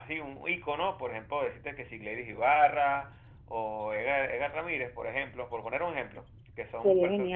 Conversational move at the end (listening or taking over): listening